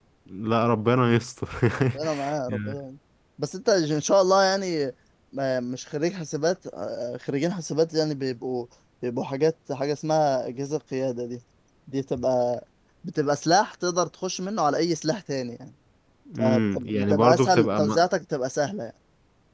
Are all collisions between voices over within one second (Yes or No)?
No